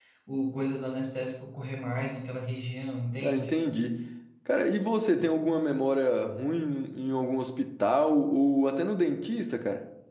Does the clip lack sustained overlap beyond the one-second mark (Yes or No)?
Yes